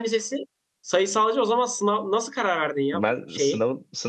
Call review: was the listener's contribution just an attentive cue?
No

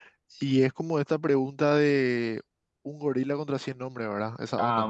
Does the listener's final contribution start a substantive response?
Yes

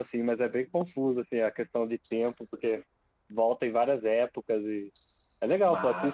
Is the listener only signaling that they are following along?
No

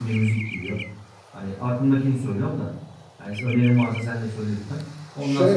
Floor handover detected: Yes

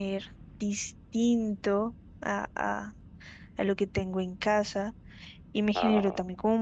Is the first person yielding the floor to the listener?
No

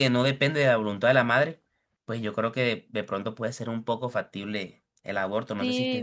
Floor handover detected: Yes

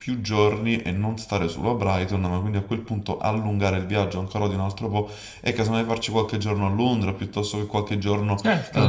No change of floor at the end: No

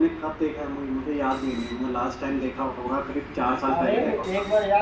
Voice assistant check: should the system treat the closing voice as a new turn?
Yes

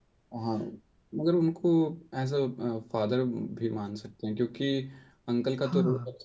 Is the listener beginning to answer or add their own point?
No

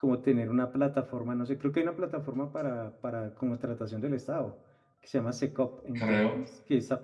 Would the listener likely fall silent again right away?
Yes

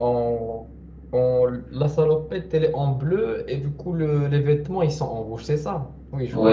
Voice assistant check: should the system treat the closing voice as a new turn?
Yes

